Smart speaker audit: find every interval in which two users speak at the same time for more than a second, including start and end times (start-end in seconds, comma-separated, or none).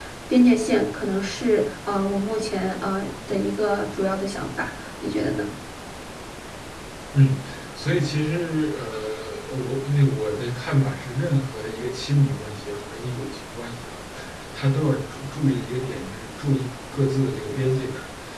none